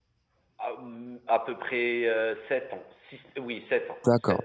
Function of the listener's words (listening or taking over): taking over